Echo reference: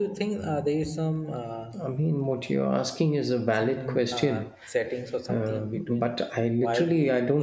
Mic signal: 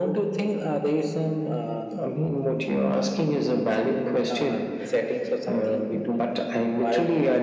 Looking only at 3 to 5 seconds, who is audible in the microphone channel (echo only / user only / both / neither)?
echo only